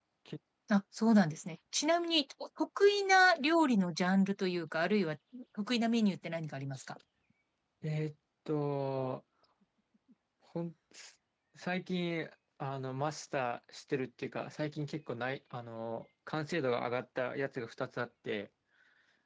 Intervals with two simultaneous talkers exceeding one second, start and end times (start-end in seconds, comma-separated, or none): none